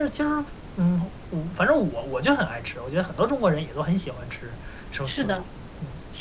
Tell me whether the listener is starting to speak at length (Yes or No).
Yes